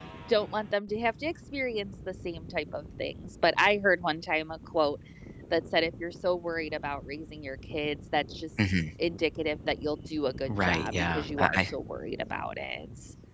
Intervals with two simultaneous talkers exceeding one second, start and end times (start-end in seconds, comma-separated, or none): 10.5-11.7